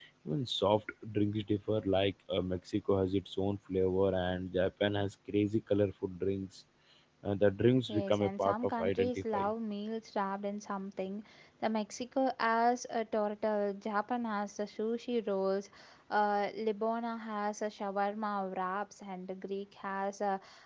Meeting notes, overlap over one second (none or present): present